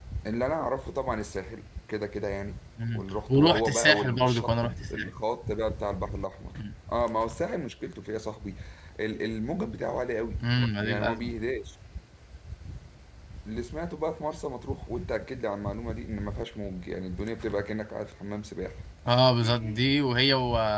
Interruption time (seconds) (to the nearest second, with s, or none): 3 s